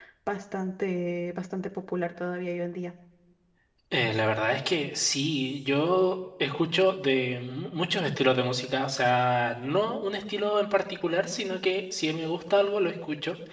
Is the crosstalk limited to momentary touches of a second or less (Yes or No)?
Yes